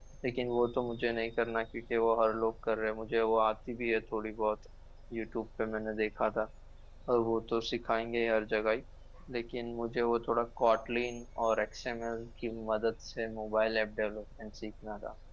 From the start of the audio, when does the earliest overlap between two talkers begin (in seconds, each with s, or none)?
none